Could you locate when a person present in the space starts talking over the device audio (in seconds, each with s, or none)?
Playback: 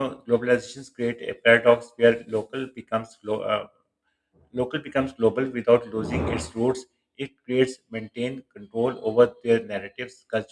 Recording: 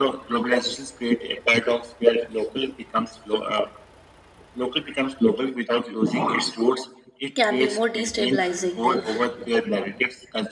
7.3 s